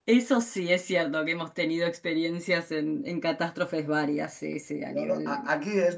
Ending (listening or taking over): taking over